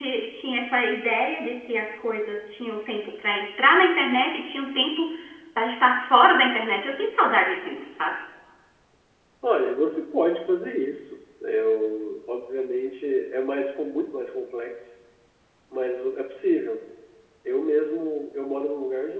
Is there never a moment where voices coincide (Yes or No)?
Yes